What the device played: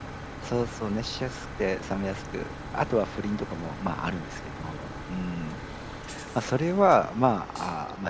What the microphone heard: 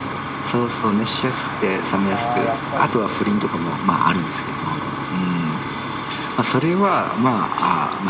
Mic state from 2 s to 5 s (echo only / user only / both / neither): both